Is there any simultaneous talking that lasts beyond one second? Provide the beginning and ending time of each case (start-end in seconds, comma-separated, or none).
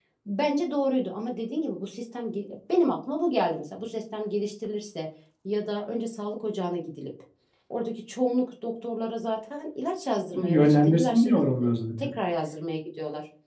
10.3-12.1